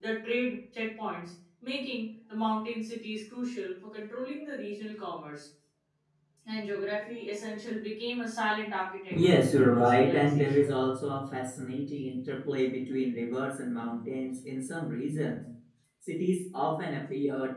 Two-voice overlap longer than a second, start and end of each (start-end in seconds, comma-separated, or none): 9.3-10.7